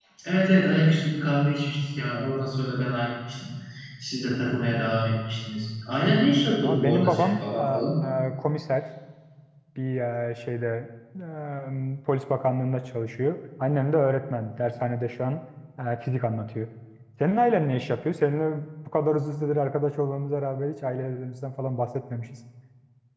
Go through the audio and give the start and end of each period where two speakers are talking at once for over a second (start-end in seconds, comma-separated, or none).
6.6-7.8